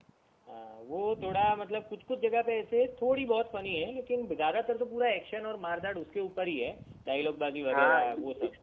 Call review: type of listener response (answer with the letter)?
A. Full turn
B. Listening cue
A